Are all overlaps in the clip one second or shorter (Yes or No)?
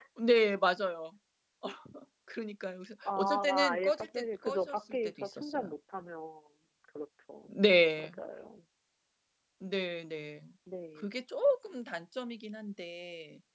No